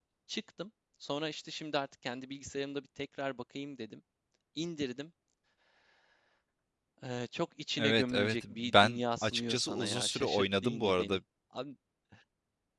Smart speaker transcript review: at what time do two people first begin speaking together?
7.8 s

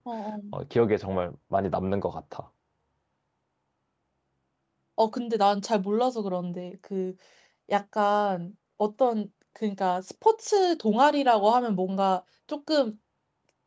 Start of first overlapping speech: none

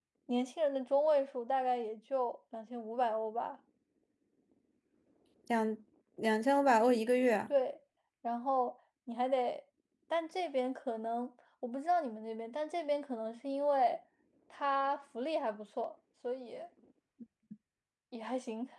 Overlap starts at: none

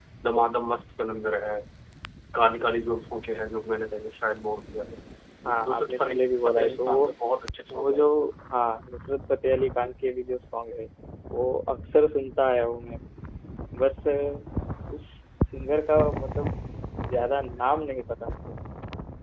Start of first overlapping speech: 5.5 s

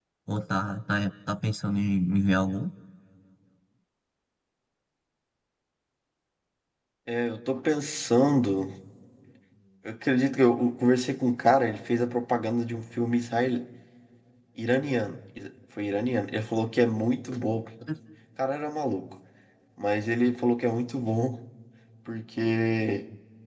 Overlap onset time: none

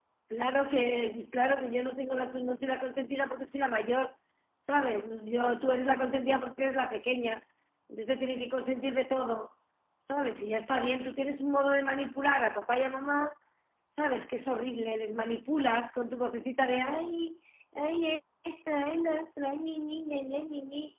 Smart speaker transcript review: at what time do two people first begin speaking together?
none

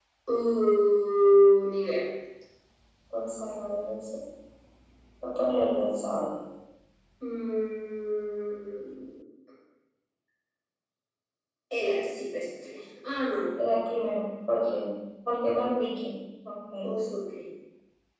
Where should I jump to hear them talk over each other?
none

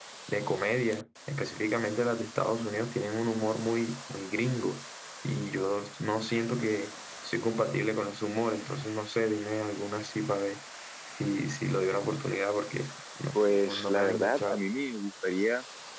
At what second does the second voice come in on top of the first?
13.4 s

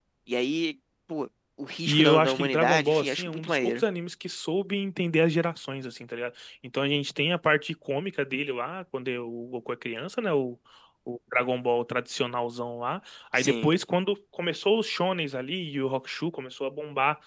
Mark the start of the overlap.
1.9 s

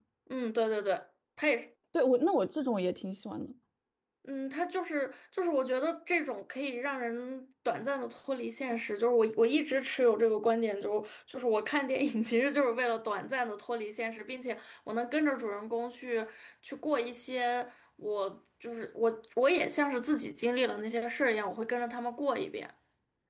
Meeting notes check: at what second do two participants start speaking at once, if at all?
none

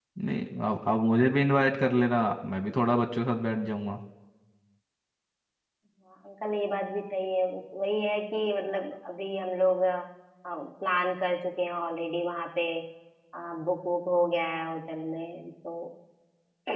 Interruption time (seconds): none

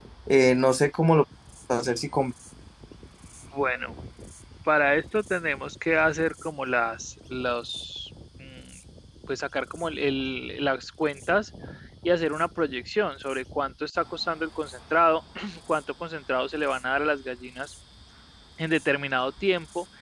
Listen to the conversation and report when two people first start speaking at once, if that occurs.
none

